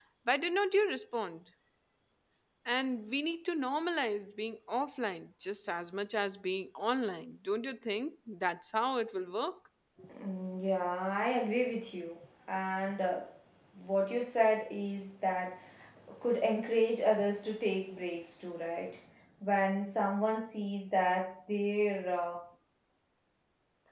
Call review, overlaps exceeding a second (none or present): none